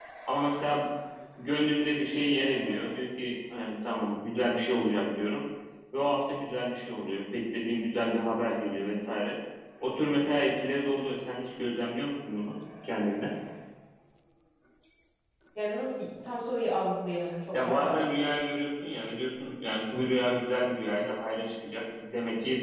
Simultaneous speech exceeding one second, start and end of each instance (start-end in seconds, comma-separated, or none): none